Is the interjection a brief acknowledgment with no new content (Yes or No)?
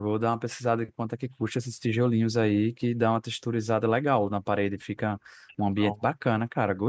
Yes